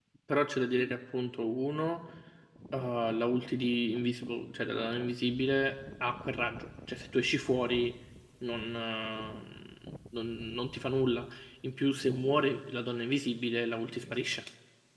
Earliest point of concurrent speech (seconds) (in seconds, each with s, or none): none